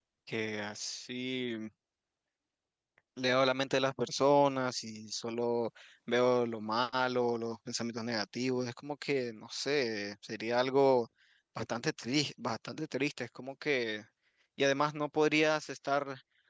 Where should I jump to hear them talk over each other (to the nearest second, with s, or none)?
none